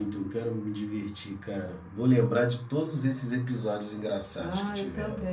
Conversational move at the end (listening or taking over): taking over